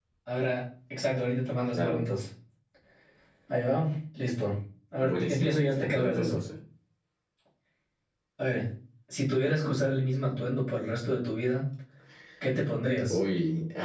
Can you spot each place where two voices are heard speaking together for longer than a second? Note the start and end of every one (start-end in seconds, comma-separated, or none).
5.0-6.4